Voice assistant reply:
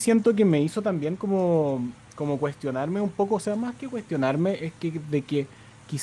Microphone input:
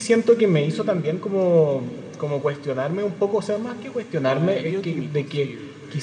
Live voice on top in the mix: No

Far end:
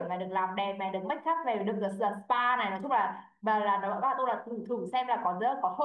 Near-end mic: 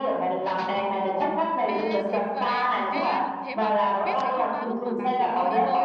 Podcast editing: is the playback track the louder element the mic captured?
Yes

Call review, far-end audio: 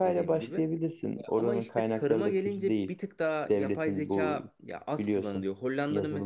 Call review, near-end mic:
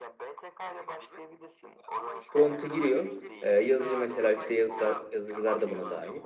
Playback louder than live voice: No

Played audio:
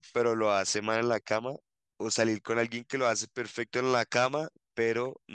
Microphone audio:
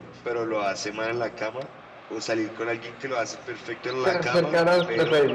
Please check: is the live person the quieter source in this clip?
No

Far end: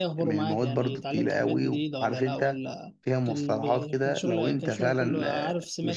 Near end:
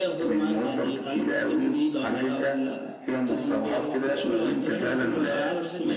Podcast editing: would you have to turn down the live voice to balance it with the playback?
No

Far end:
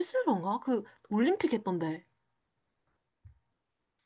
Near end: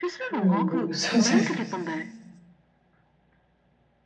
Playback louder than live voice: No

